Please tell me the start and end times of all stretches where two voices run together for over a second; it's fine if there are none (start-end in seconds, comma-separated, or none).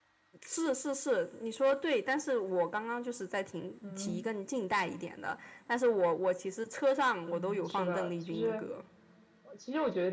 7.3-8.7